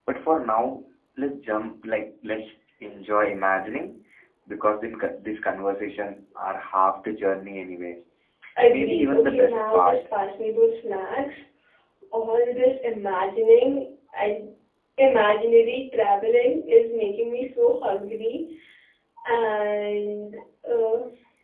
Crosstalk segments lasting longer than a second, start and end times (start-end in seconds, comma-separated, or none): 8.7-10.0